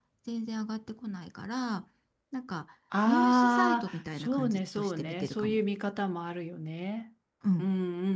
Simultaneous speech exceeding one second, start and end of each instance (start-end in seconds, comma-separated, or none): 3.0-5.6